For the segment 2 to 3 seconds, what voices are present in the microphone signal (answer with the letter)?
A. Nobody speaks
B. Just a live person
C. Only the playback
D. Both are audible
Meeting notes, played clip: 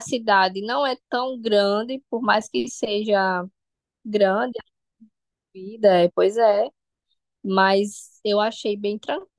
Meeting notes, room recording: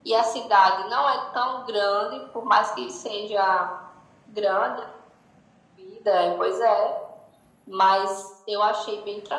C